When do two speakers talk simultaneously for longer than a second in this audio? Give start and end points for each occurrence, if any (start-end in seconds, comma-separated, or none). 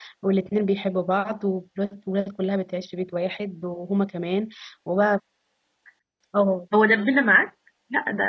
none